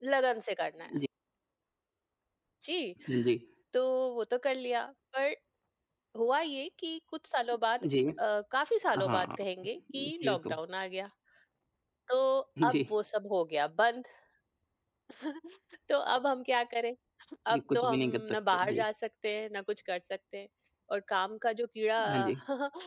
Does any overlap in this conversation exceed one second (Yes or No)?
Yes